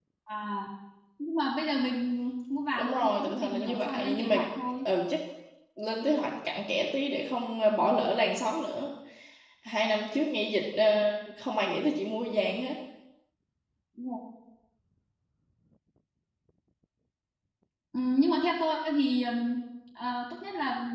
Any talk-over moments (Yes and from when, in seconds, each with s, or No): Yes, from 2.8 s